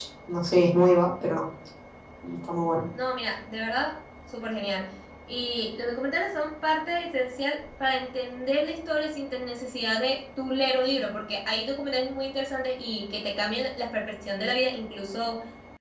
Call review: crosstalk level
none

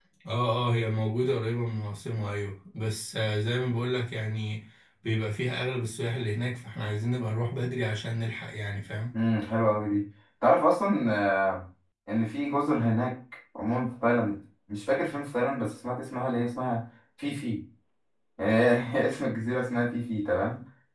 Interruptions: none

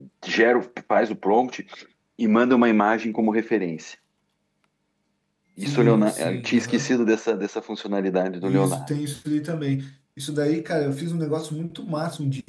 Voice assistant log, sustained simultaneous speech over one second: present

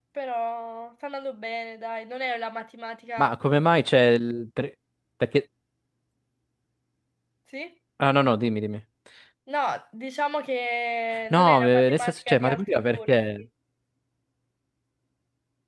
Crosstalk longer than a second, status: present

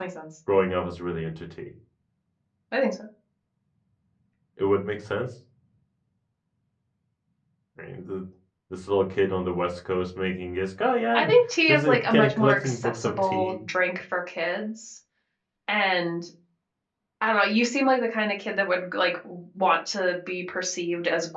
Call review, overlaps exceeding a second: present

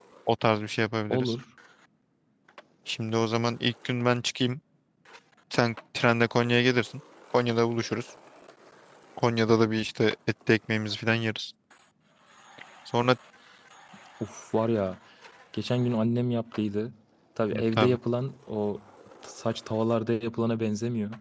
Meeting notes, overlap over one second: none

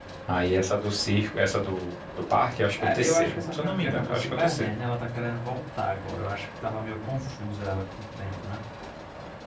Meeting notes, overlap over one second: present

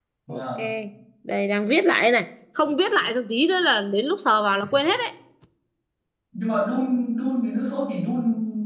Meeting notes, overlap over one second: none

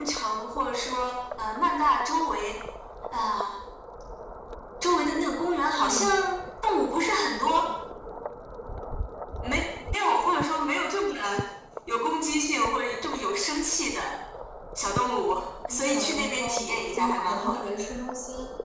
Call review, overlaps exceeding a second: present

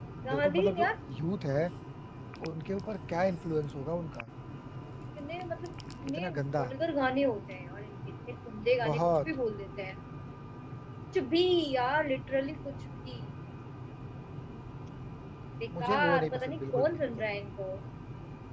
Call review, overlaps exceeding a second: present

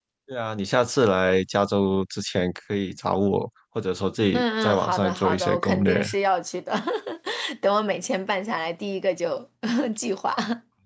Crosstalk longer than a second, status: present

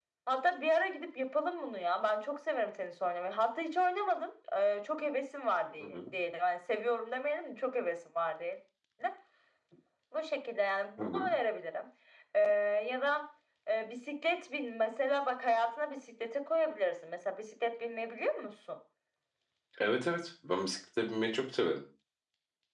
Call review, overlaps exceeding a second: none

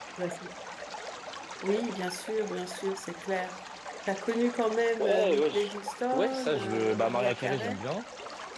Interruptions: present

